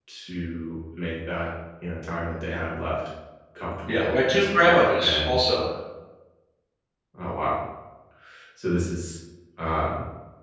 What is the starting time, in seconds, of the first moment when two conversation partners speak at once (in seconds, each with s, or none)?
3.9 s